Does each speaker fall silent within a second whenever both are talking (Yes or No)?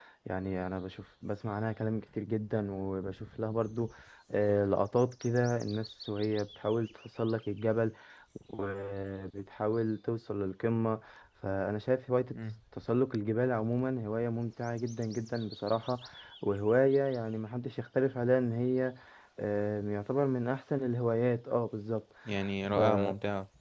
Yes